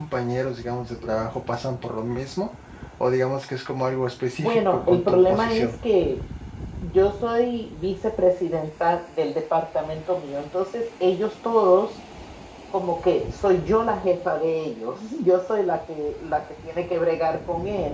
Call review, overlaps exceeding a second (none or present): present